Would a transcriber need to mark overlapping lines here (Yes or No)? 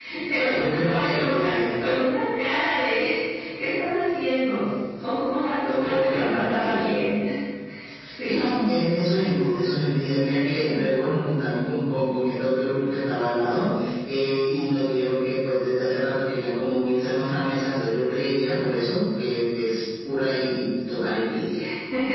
Yes